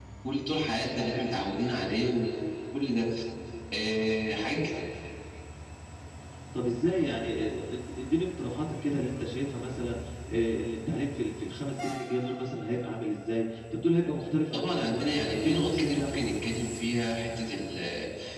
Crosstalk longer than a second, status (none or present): present